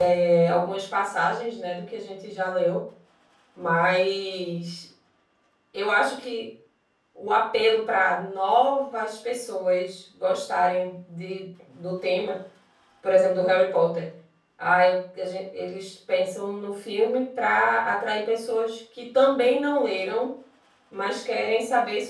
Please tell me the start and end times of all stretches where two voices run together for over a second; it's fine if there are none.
none

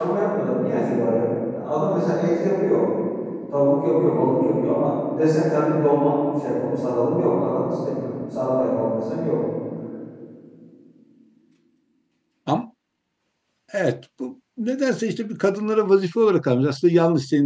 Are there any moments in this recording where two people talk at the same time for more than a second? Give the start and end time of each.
none

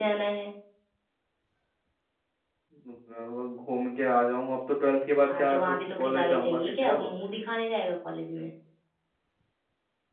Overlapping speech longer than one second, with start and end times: 5.4-7.1

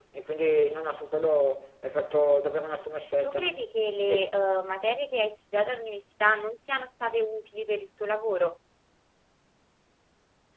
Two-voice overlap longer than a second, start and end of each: none

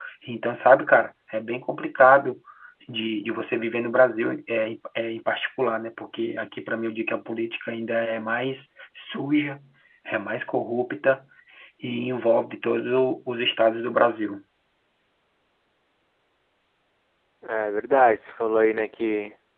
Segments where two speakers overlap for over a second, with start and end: none

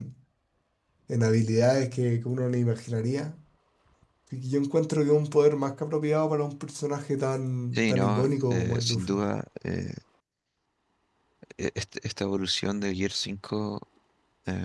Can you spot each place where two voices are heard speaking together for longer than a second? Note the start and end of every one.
7.8-9.2

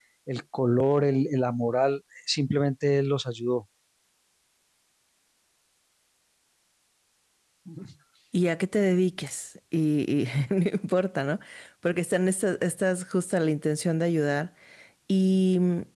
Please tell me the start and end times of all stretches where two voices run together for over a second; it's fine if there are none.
none

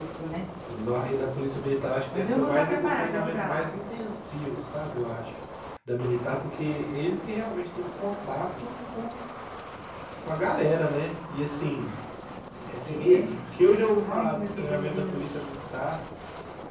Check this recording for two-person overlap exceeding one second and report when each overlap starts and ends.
2.1-3.7, 14.0-15.5

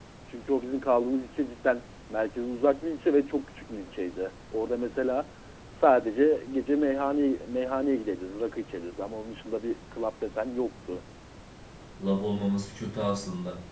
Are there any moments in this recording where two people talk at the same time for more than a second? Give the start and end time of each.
none

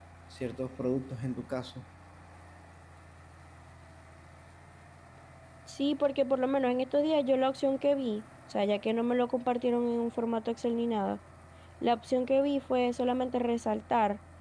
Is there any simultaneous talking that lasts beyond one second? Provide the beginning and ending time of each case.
none

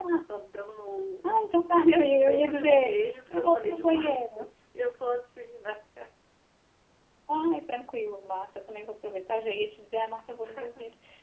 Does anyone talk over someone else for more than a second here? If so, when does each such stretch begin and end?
2.3-4.2

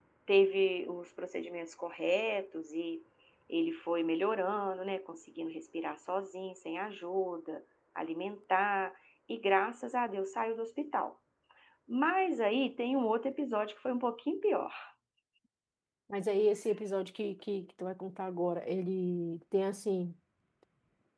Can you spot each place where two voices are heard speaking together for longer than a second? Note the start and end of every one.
none

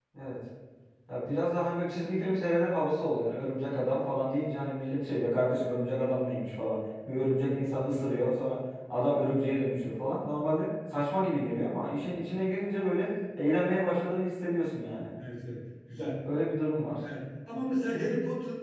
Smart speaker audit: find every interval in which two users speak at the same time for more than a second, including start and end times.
none

